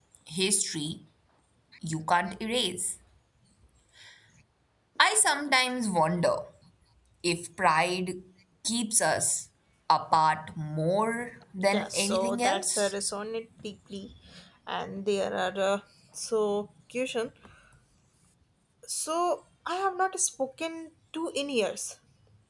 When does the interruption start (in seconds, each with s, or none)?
11.6 s